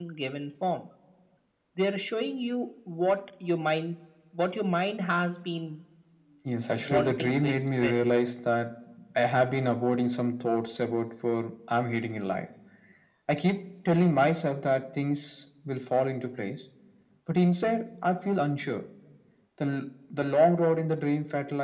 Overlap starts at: 6.8 s

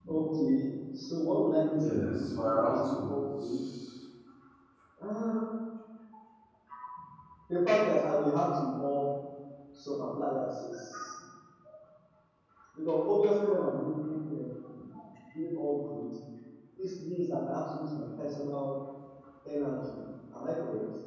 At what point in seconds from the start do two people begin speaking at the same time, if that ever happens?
1.8 s

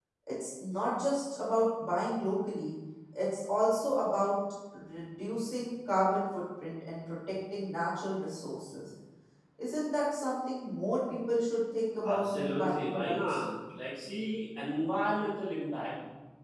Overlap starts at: 12.0 s

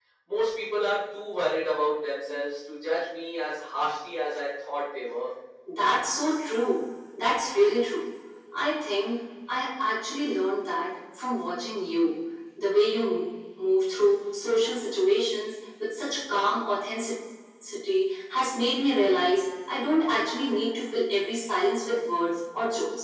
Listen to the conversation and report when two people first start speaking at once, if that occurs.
none

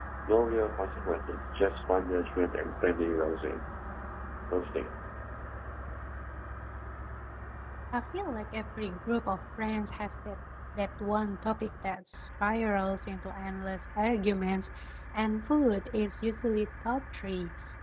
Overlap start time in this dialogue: none

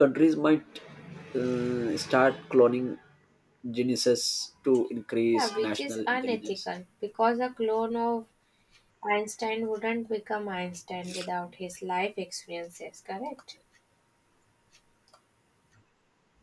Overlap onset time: 5.3 s

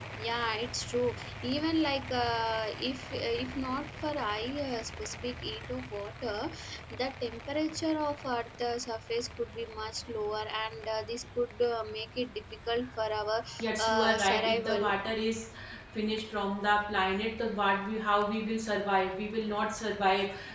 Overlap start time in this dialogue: 13.6 s

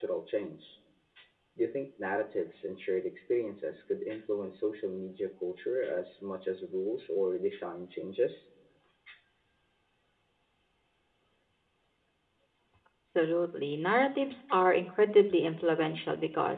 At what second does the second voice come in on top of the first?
none

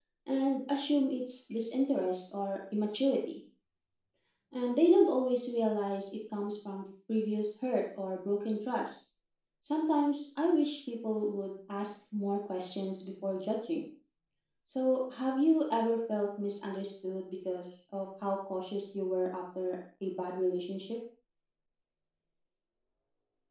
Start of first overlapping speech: none

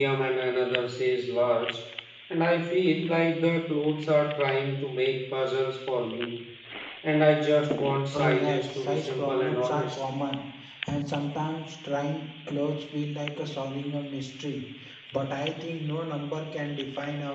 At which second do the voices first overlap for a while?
8.1 s

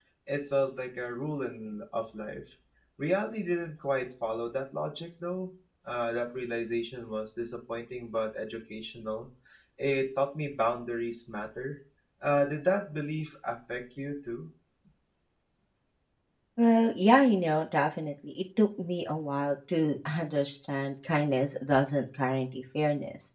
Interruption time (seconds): none

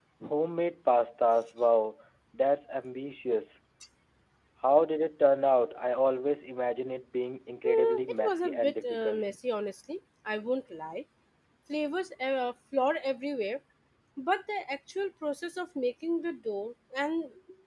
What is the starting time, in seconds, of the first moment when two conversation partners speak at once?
7.6 s

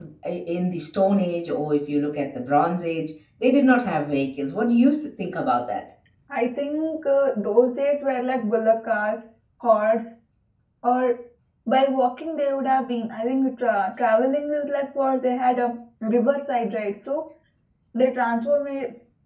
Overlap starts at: none

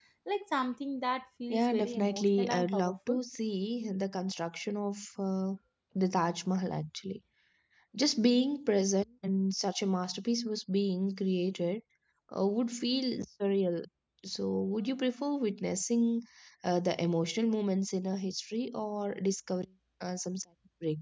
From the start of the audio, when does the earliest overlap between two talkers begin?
1.5 s

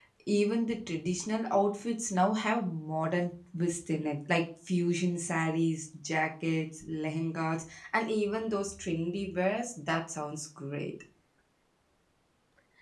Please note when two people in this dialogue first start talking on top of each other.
none

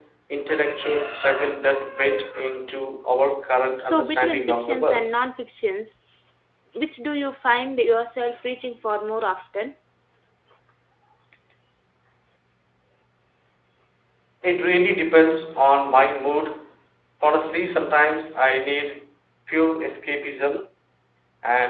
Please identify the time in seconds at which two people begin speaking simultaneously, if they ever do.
3.9 s

